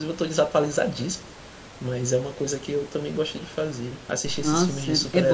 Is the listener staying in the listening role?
No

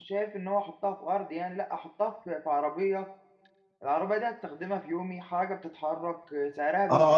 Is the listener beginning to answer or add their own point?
Yes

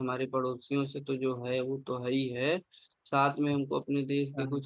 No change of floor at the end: Yes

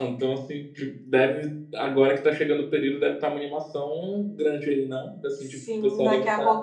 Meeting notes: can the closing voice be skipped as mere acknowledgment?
No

